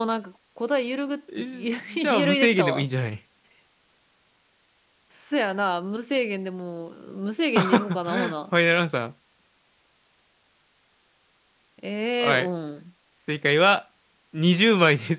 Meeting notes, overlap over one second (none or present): present